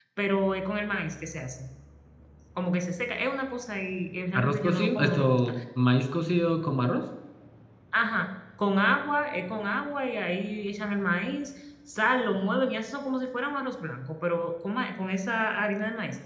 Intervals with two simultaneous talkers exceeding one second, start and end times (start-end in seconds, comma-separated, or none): 4.3-5.5